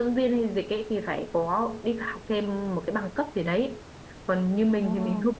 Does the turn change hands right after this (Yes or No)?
No